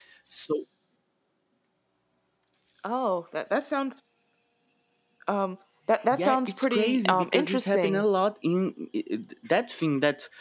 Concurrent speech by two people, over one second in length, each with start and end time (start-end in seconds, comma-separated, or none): 6.1-8.0